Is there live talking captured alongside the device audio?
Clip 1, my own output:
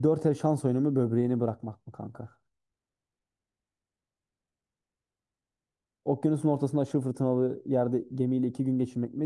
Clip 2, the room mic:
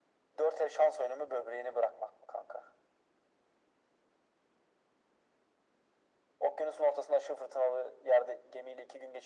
No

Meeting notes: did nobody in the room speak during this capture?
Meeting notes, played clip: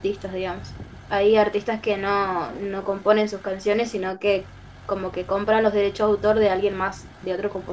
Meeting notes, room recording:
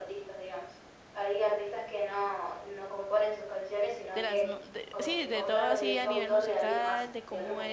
No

